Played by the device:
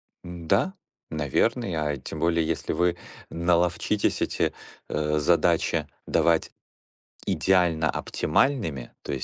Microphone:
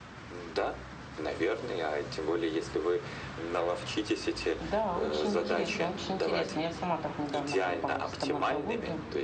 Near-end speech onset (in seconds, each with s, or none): 4.6 s